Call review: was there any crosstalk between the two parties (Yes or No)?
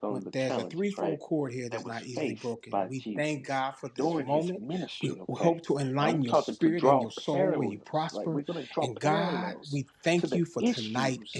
Yes